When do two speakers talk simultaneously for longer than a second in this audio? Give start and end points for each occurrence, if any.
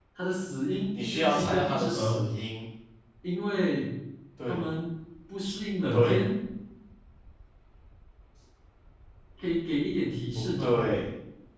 1.0-2.3

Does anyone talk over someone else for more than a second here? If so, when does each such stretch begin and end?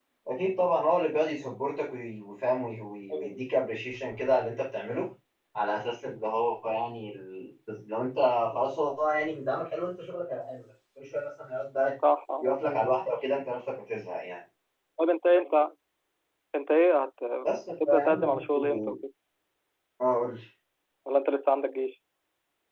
17.7-18.9

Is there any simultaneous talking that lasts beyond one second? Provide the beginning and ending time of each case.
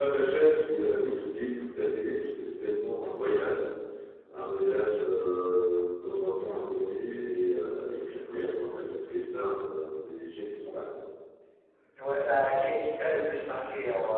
none

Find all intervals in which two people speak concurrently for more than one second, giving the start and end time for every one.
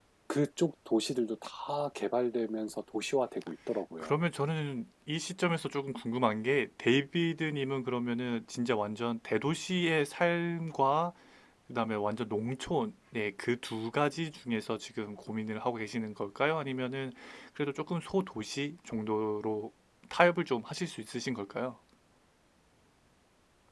none

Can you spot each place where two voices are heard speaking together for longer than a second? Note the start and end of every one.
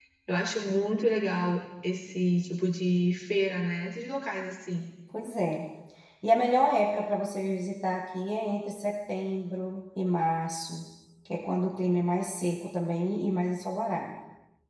none

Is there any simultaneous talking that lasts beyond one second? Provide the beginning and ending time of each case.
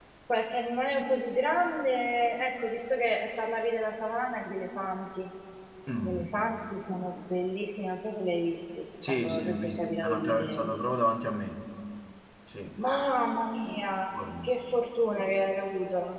9.1-10.7

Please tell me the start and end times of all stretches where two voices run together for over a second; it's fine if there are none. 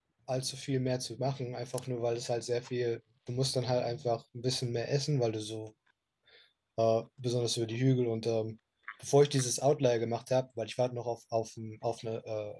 none

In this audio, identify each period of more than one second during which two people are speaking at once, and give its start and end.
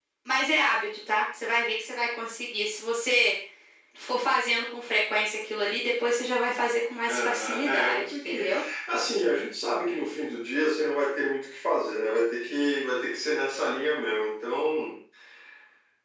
7.1-8.5

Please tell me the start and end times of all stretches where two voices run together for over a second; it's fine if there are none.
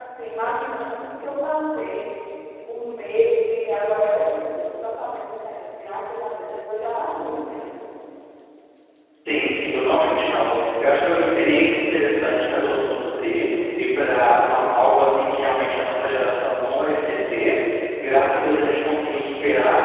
none

